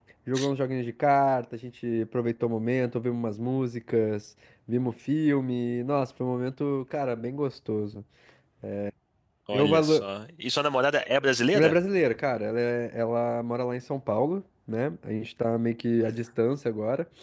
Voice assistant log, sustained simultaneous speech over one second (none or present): none